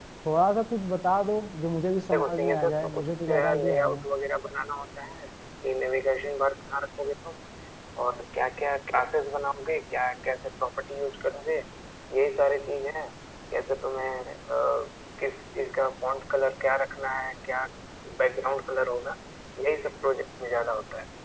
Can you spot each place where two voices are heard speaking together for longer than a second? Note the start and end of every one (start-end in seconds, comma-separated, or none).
2.1-4.0